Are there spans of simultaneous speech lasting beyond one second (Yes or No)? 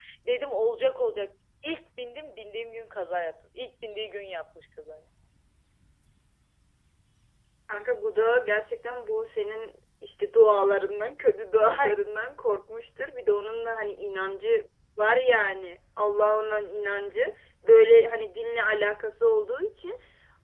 No